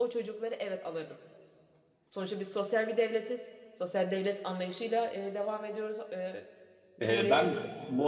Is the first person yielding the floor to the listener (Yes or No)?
Yes